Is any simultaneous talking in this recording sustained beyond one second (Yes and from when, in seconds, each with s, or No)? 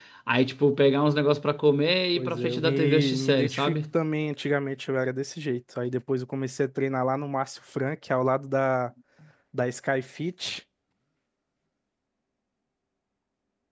Yes, from 2.1 s